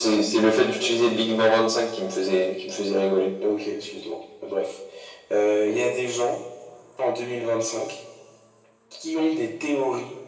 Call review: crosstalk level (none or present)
none